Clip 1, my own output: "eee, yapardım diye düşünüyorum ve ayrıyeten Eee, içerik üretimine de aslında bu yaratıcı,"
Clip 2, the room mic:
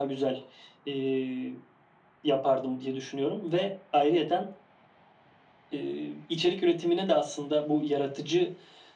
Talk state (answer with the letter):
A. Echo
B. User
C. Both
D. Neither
A